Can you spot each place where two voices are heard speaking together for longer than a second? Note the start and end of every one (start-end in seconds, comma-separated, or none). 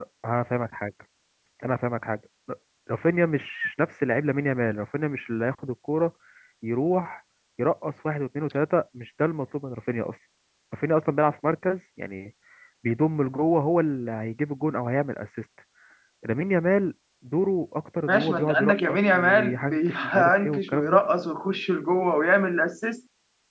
18.1-21.0